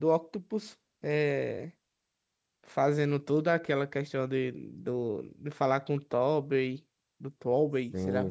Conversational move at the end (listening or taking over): taking over